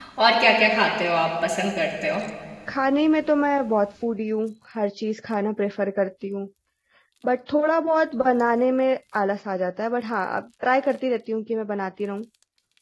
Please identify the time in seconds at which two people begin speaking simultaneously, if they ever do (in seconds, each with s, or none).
none